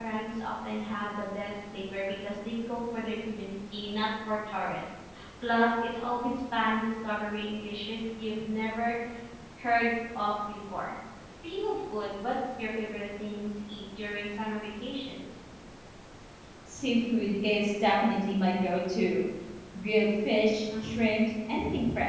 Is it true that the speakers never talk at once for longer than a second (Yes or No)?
Yes